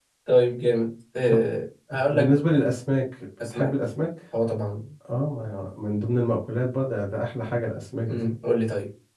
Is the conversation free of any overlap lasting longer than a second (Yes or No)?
Yes